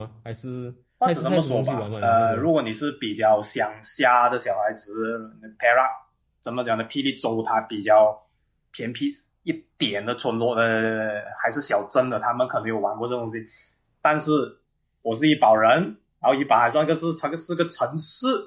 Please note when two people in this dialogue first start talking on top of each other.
1 s

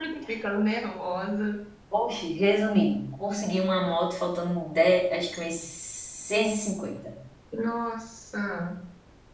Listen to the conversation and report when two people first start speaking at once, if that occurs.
none

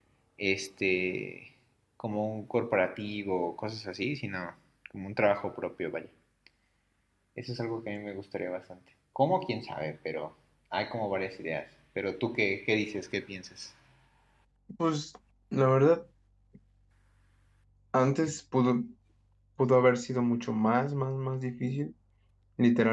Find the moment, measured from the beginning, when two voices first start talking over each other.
none

